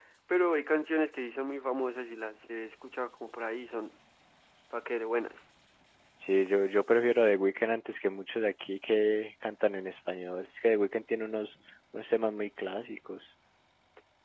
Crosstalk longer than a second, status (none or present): none